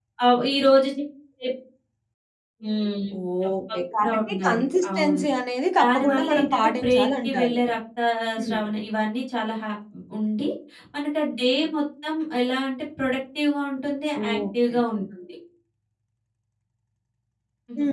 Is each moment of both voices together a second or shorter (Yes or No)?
No